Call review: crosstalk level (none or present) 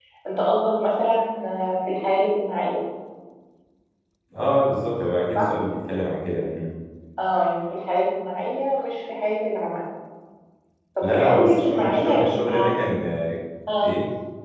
present